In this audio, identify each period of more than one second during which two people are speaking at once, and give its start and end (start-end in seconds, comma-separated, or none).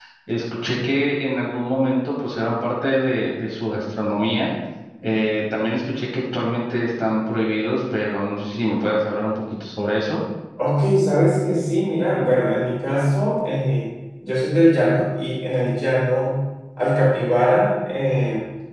none